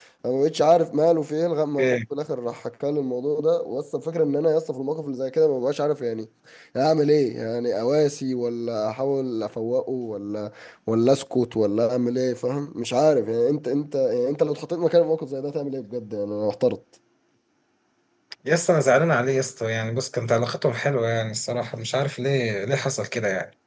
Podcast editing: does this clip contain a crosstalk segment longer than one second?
No

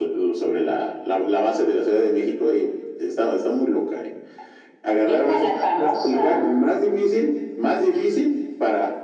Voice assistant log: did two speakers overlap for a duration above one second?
Yes, from 4.9 s

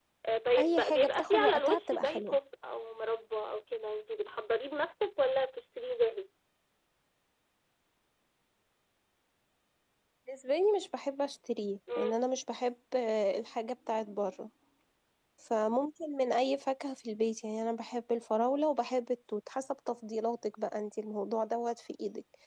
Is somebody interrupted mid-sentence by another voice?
Yes, from 0.6 s

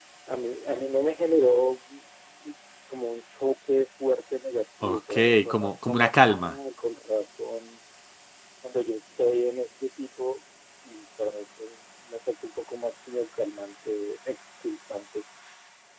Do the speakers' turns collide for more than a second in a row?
Yes, from 4.8 s

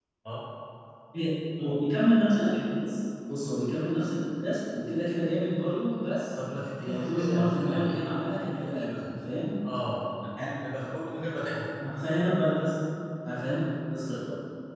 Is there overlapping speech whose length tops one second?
Yes, from 6.8 s

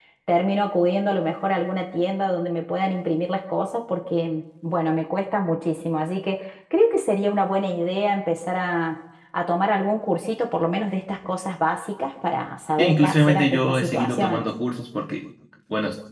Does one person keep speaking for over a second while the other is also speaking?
Yes, from 12.8 s

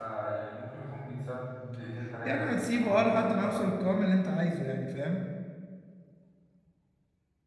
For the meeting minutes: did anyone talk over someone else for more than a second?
Yes, from 2.2 s

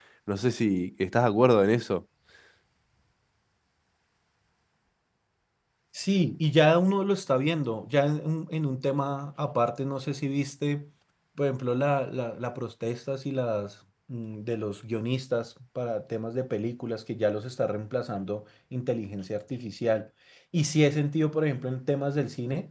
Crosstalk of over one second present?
No

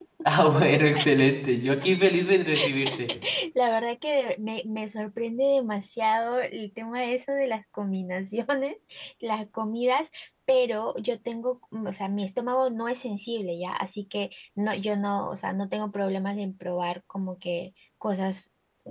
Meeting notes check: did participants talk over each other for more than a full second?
No

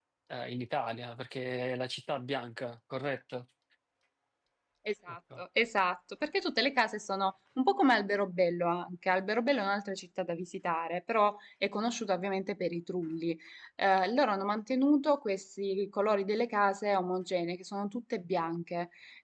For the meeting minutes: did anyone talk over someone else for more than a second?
No

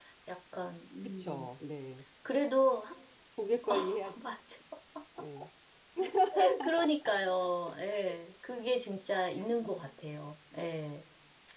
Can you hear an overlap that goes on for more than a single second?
No

